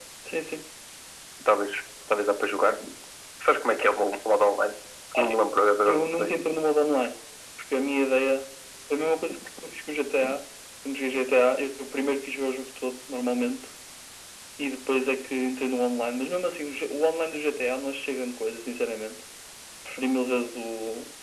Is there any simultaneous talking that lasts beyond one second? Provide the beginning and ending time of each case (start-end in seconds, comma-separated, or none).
none